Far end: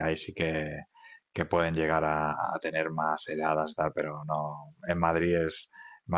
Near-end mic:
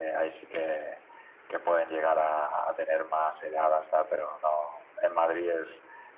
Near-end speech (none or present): none